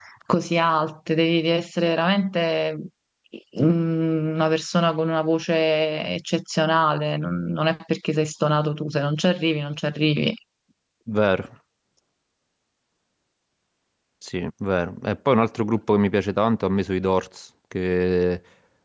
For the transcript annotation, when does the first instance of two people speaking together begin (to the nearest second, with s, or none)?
none